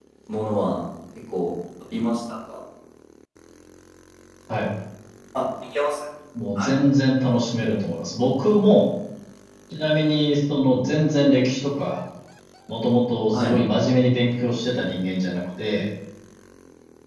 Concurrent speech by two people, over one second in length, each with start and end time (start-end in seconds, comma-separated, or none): none